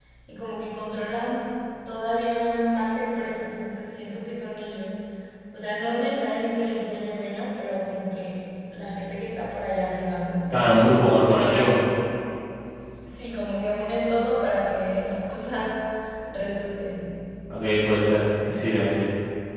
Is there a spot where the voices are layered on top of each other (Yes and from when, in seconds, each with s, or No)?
Yes, from 10.5 s